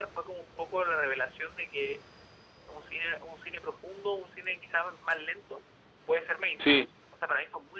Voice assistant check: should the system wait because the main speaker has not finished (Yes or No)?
Yes